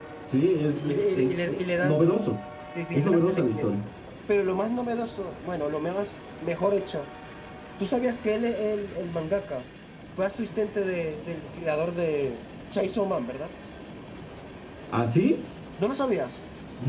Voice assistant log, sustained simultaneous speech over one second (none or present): present